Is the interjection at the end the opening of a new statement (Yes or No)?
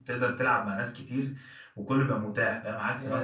No